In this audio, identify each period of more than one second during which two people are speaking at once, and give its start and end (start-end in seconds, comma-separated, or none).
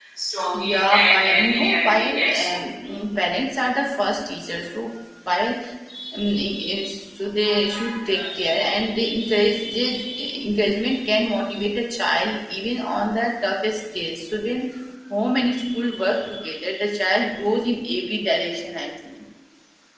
0.5-2.5